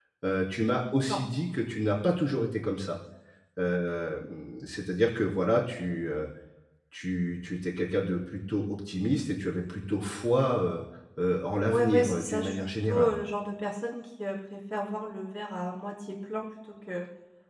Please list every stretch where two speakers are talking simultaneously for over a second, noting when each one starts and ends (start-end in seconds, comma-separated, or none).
11.7-13.2